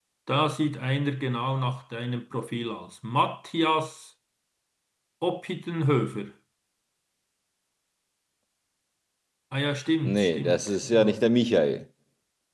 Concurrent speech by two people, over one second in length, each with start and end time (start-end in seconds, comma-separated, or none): 10.0-11.3